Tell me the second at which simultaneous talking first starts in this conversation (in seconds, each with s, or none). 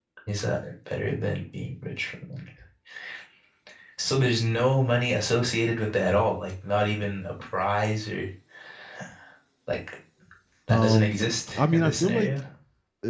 10.7 s